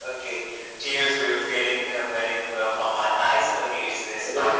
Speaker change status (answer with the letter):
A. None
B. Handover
B